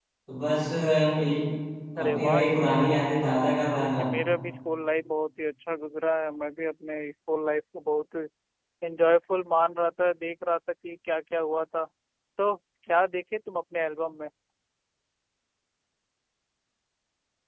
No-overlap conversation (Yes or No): No